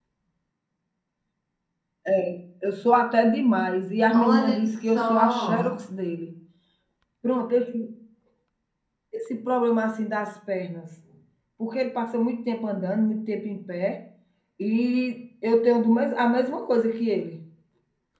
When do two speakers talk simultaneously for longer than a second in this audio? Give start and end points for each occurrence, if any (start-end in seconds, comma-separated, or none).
4.1-5.7